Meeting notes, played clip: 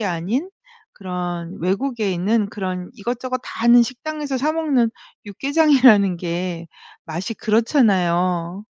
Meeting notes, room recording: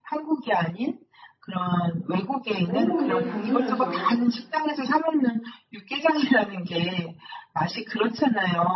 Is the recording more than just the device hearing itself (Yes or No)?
Yes